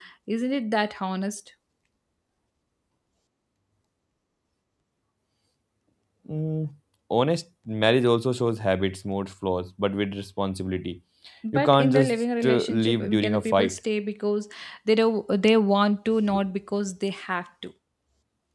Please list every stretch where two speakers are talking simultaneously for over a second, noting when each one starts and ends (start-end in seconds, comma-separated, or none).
11.5-13.8